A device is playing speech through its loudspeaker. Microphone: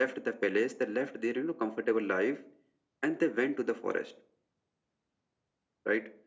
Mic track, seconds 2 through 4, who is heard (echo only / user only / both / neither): echo only